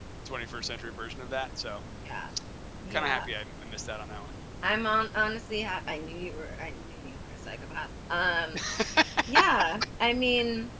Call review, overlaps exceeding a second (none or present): none